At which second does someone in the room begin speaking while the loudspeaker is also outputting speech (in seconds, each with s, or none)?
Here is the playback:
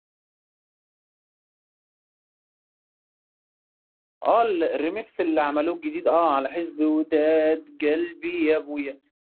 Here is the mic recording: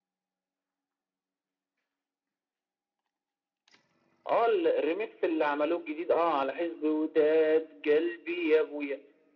none